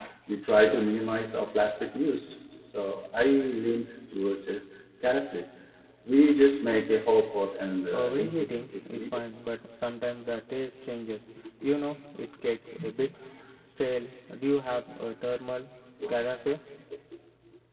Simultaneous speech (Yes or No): Yes